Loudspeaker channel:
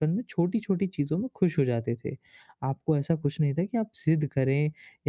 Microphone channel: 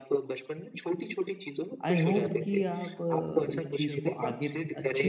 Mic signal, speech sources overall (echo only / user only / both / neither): both